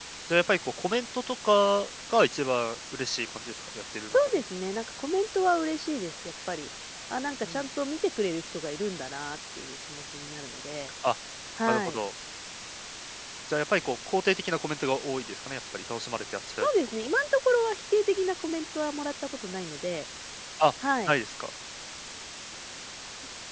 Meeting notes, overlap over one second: none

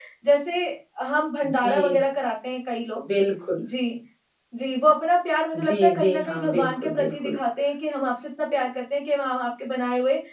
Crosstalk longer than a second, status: present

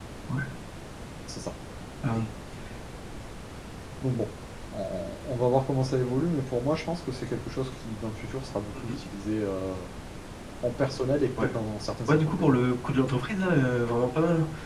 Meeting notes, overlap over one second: none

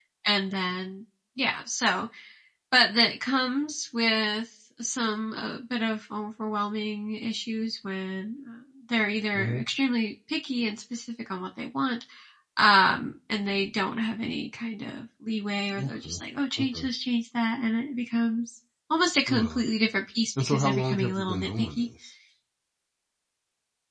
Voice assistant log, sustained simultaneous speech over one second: present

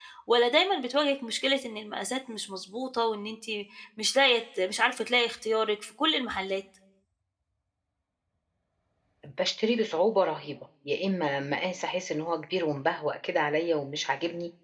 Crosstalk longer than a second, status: none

